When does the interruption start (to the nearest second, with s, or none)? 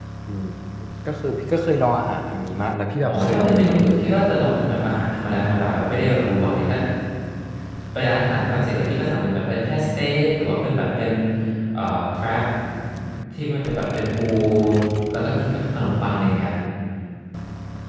3 s